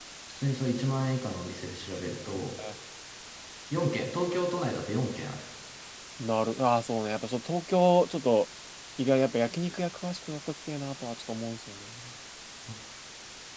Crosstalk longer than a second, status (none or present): none